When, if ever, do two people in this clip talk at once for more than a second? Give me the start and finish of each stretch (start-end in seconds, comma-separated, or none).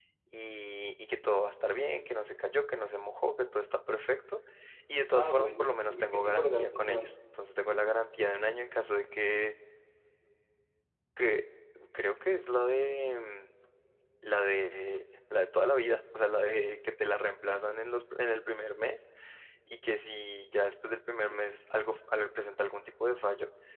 5.1-7.1